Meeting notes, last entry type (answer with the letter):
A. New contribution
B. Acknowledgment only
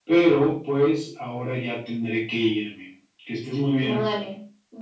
A